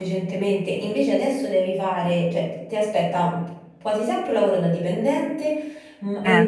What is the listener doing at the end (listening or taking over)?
listening